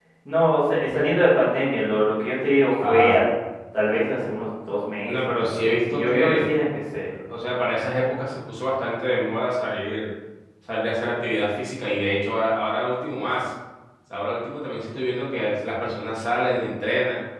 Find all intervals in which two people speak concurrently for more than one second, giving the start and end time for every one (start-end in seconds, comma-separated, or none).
5.1-6.5